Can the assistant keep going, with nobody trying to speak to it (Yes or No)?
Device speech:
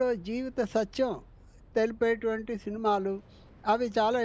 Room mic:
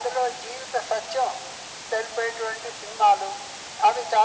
Yes